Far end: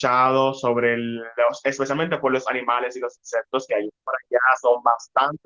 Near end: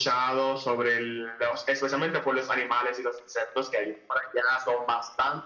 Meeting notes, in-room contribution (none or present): none